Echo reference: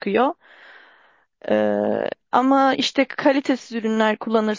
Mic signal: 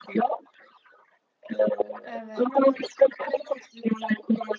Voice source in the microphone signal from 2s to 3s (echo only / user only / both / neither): both